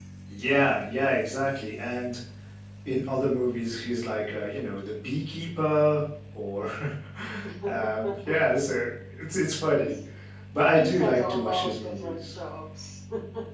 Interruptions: present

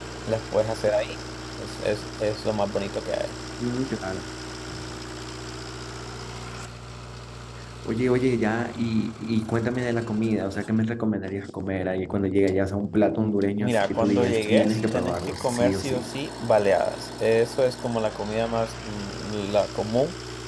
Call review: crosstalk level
present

